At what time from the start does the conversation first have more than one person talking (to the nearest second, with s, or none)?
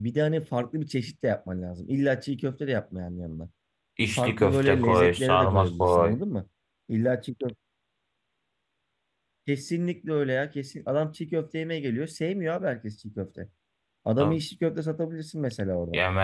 4 s